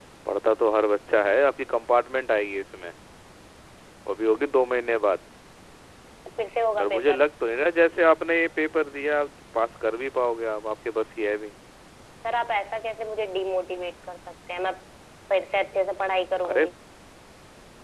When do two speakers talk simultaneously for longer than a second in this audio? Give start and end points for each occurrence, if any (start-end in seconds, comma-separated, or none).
none